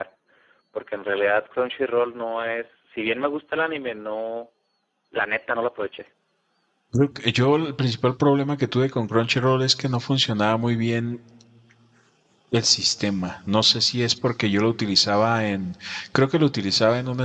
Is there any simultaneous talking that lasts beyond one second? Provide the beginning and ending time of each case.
none

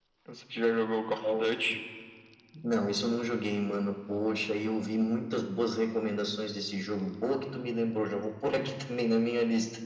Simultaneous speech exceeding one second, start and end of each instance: none

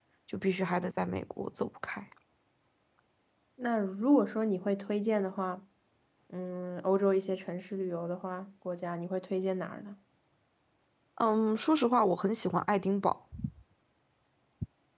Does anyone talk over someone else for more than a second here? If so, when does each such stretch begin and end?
none

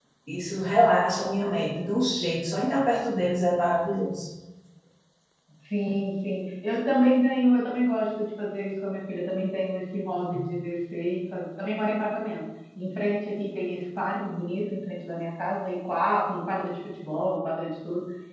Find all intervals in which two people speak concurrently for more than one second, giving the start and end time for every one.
none

